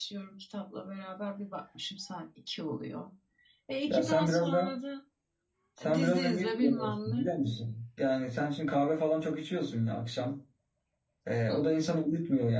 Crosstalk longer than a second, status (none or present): present